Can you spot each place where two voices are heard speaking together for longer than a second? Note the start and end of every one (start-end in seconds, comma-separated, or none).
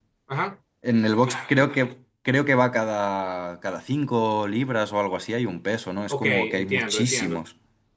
6.1-7.4